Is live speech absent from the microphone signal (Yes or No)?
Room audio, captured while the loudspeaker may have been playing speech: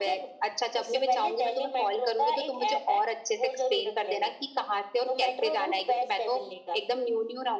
Yes